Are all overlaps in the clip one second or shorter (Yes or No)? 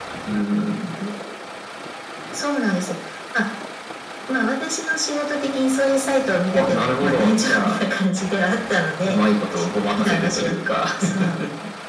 No